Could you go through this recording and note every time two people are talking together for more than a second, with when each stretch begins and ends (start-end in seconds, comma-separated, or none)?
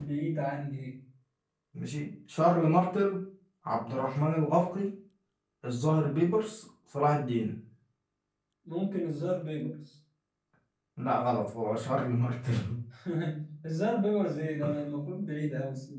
none